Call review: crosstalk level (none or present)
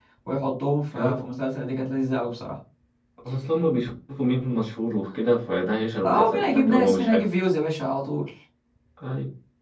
present